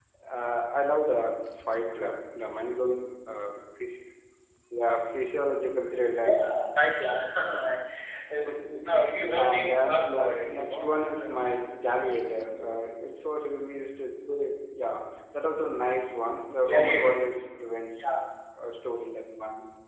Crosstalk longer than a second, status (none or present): present